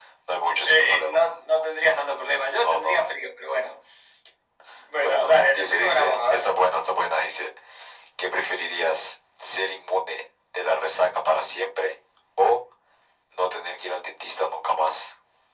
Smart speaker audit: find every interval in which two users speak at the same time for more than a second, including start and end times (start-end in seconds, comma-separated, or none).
5.0-6.5